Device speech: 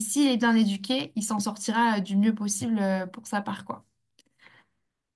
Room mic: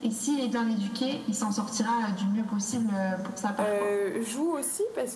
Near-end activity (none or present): present